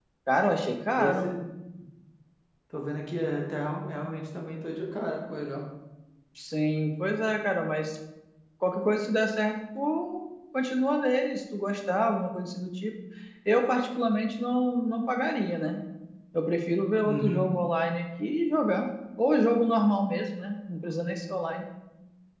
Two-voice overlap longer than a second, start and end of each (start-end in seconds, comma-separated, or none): none